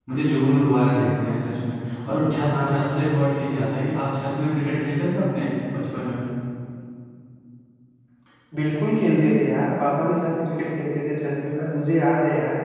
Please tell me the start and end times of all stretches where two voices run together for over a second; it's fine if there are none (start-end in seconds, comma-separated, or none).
none